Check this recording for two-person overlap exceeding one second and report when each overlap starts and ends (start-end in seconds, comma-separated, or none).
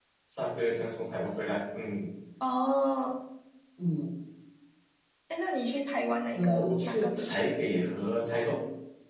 6.3-7.6